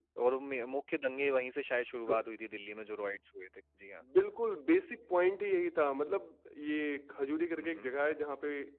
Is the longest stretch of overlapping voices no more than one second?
Yes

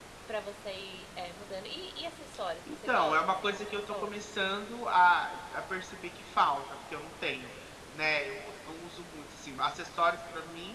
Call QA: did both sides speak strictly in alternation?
No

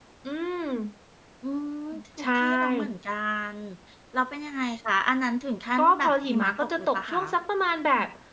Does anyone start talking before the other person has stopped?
Yes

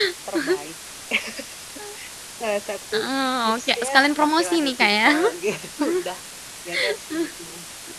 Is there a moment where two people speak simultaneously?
Yes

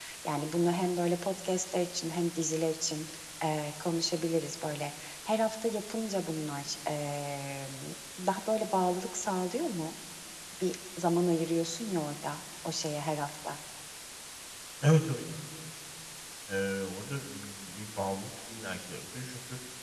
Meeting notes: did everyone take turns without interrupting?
Yes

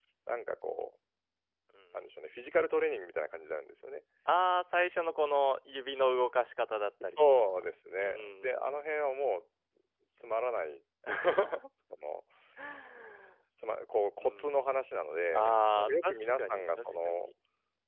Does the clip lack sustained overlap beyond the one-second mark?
No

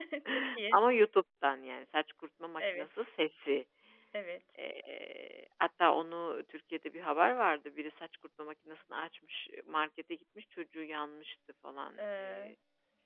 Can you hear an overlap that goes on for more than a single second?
No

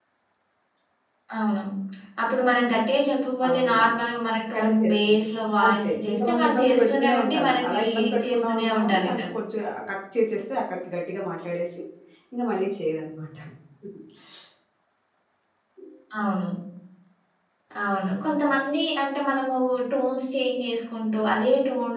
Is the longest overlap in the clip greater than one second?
Yes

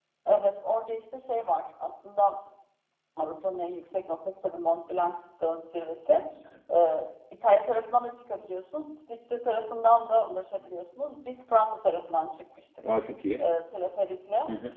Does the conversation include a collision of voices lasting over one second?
No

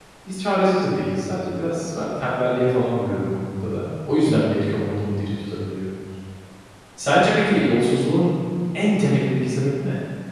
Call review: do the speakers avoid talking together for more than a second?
Yes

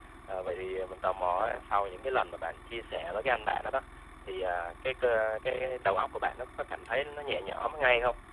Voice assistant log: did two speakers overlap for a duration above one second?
No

